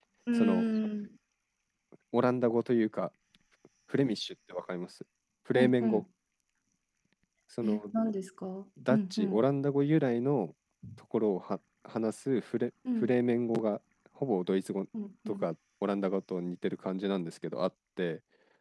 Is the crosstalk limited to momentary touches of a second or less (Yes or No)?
Yes